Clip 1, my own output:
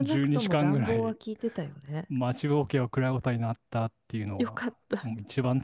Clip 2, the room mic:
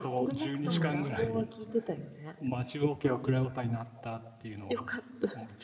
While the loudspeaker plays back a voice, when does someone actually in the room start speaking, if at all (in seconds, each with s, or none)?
0.6 s